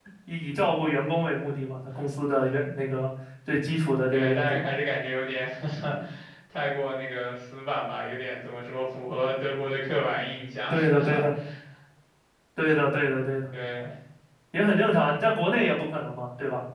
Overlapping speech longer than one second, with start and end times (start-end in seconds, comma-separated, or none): none